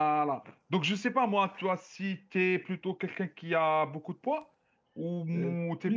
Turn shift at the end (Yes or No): Yes